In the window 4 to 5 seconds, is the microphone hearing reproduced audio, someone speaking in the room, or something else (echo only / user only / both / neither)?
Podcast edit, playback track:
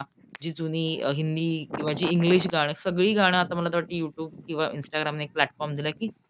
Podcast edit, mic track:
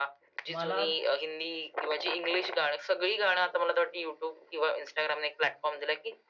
echo only